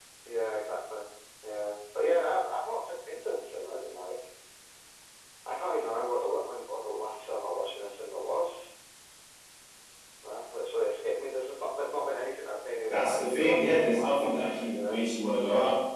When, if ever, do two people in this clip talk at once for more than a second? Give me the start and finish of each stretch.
12.9-15.0

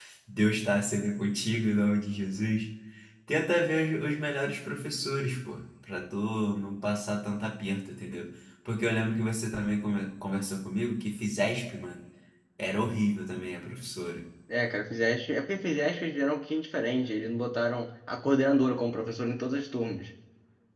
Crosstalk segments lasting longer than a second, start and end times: none

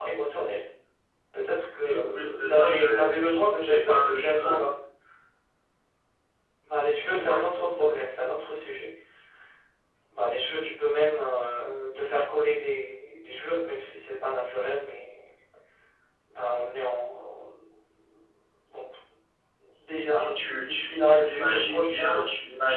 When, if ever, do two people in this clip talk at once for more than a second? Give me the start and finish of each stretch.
1.8-4.6, 20.2-22.2

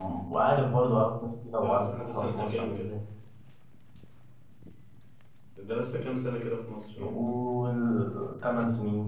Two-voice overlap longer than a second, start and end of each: 1.6-2.9

